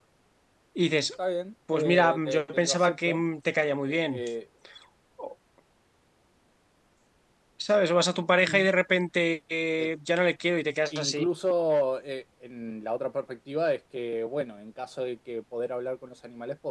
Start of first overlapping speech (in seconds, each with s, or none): 1.7 s